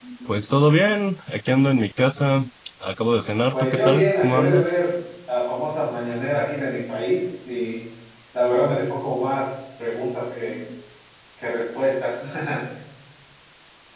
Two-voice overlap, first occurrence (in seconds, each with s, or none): 3.5 s